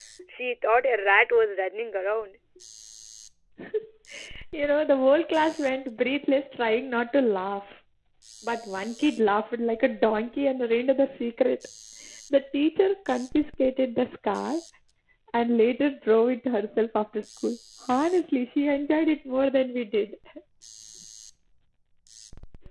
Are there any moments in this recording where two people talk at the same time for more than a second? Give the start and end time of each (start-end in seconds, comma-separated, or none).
none